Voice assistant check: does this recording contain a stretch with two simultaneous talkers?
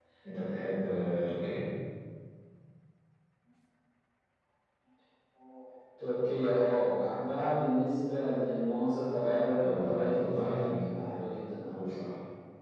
Yes, from 9.6 s

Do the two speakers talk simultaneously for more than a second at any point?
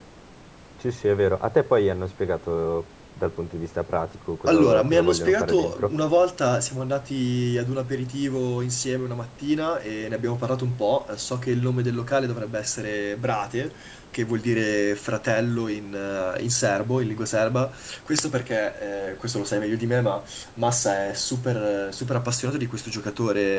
Yes, from 4.5 s

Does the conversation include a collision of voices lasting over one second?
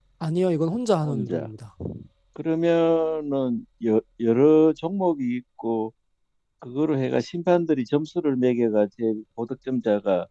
No

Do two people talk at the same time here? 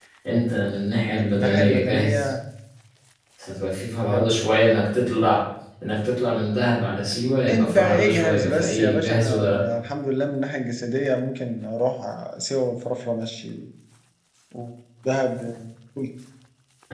Yes, from 1.0 s

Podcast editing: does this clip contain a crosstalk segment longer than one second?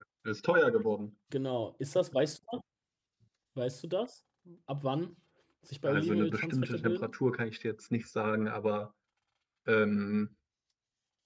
Yes, from 5.8 s

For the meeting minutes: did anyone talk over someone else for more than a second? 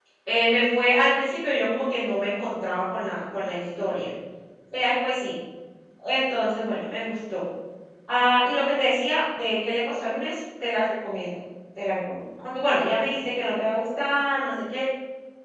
No

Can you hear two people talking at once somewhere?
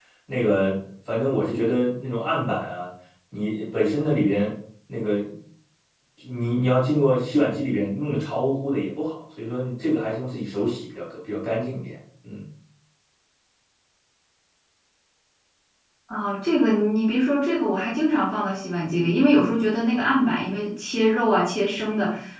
No

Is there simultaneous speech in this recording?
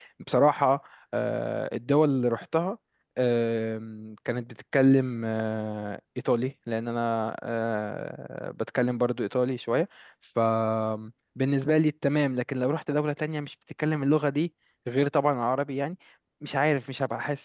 No

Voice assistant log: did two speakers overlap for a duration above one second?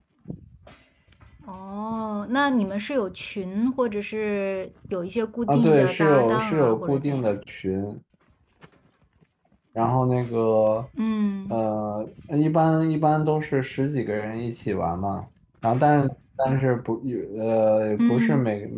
Yes, from 5.5 s

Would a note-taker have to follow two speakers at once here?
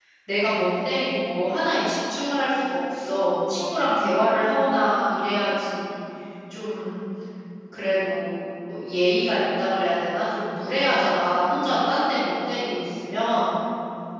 No

